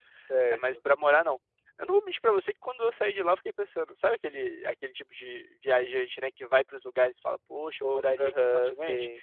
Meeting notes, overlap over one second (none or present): present